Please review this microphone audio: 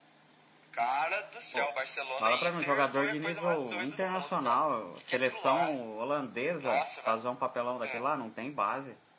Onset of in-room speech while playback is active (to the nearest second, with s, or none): 2 s